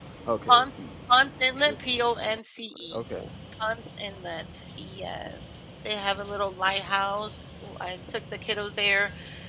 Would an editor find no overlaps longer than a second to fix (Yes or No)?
Yes